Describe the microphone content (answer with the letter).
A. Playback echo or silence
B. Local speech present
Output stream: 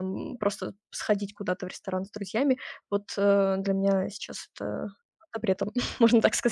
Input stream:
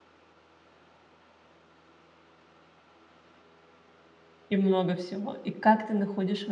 B